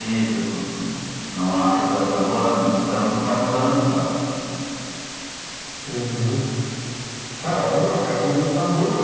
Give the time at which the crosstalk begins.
none

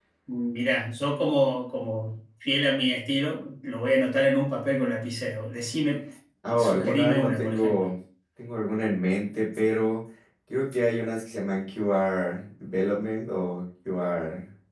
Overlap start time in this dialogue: 6.6 s

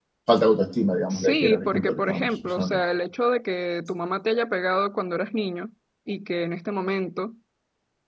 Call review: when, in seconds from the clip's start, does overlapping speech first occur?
1.1 s

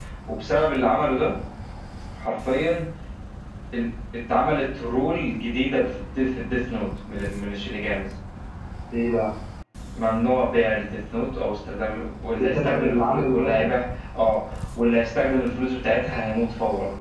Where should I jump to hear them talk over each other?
12.3 s

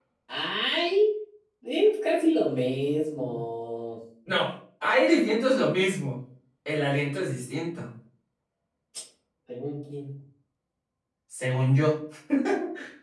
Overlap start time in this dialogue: none

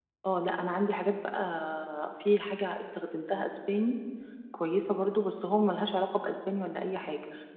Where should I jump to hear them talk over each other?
none

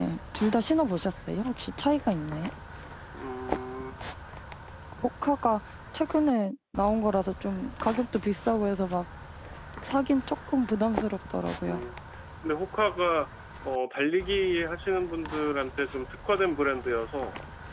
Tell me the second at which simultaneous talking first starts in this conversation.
none

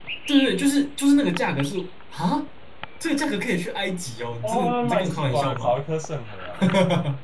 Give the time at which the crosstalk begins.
4.4 s

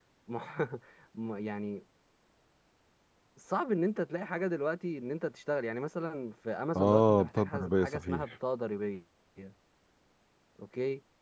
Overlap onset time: 6.8 s

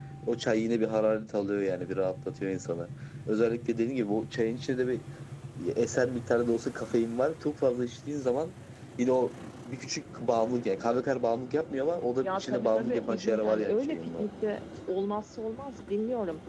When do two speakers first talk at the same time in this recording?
12.2 s

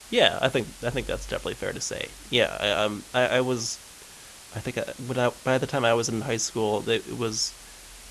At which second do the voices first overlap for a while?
none

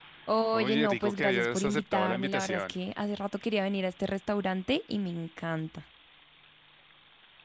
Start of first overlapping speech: 0.5 s

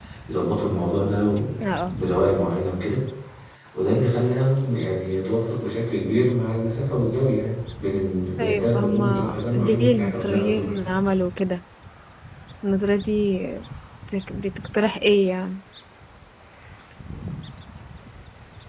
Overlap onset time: 8.4 s

